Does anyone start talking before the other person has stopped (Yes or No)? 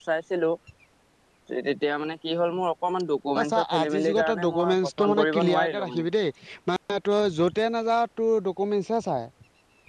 Yes